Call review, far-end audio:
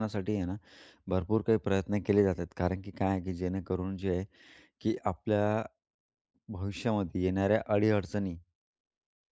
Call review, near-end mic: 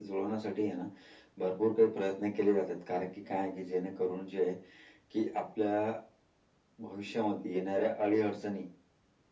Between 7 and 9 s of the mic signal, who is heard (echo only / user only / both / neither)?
echo only